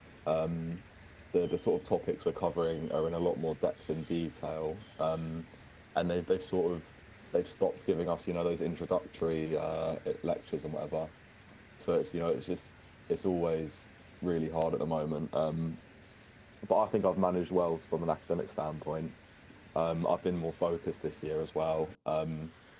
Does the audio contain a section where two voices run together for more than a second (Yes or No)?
No